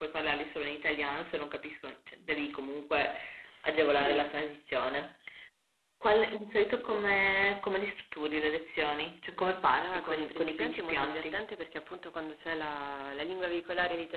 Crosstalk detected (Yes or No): Yes